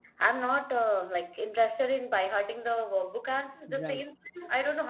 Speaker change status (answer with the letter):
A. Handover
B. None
B